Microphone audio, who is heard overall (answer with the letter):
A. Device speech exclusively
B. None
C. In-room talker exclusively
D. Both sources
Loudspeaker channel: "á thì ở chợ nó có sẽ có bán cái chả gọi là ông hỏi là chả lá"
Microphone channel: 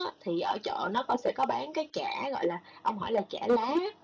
A